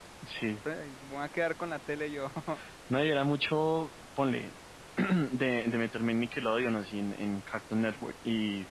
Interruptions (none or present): none